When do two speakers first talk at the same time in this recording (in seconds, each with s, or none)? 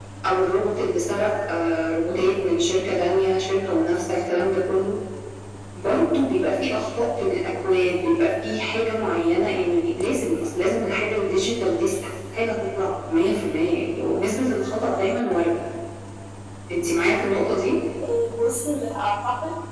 none